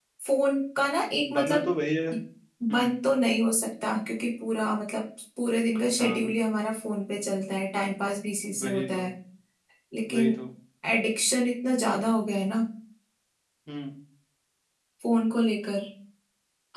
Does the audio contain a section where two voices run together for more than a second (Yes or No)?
No